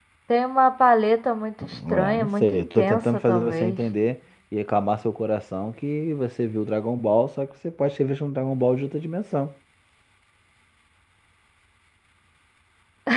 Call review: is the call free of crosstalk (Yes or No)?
No